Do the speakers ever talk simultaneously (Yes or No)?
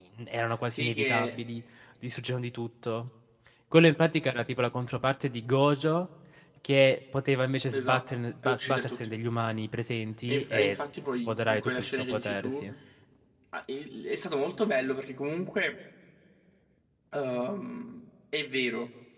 Yes